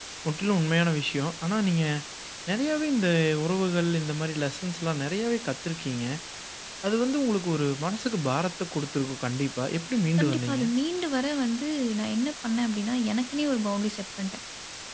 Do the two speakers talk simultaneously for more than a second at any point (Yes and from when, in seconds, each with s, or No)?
No